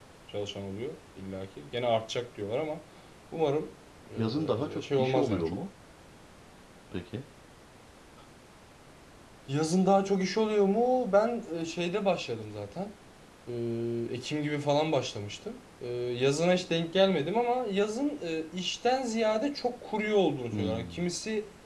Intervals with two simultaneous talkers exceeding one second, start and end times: 4.2-5.6

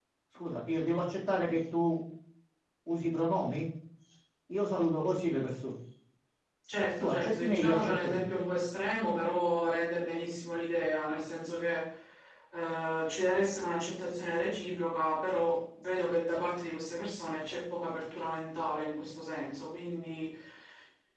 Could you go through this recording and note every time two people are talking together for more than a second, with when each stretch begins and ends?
7.0-8.2

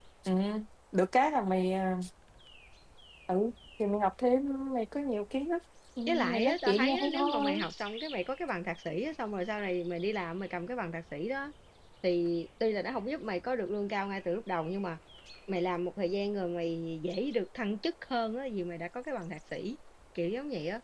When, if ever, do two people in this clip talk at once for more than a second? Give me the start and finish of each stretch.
6.1-7.6

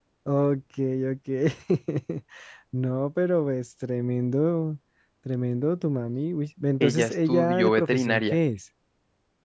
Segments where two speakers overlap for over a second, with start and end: 6.8-8.4

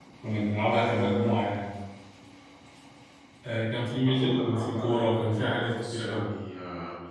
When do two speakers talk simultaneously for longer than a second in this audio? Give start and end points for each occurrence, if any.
4.0-6.3

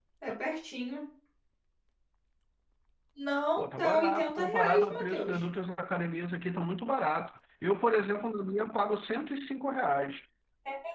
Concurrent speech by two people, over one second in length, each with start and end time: 3.6-5.4

